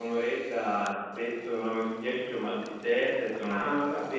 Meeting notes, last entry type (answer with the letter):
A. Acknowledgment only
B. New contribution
B